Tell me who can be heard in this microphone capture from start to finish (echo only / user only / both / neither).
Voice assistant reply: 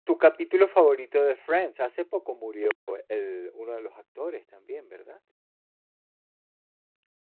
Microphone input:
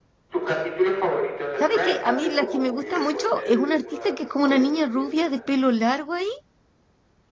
both